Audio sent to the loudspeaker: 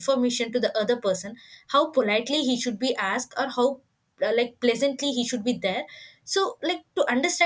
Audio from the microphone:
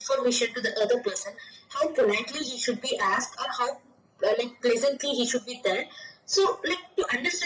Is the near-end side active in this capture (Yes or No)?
No